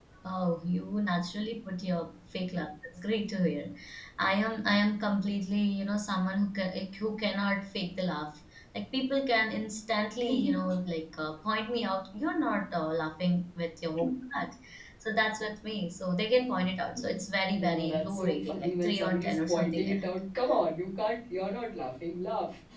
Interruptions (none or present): present